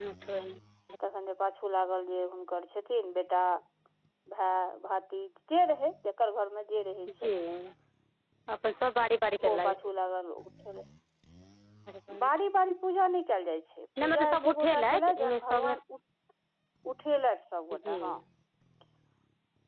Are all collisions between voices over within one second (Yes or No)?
No